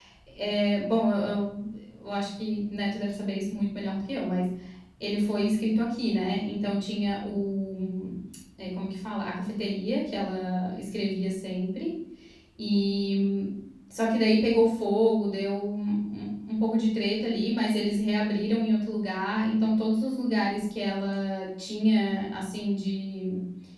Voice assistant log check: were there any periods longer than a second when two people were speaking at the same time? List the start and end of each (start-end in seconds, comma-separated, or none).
none